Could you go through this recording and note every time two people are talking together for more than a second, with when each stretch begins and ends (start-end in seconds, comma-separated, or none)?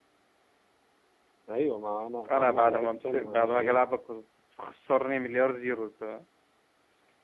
2.3-3.8